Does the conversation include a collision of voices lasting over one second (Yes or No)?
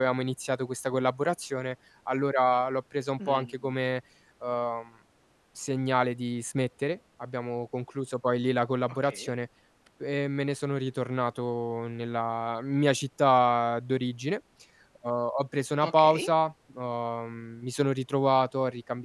No